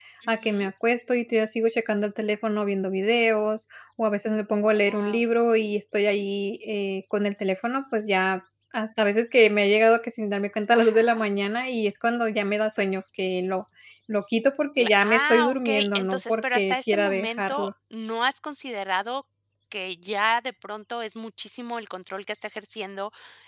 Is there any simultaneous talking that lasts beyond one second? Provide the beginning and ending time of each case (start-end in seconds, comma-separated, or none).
14.8-17.7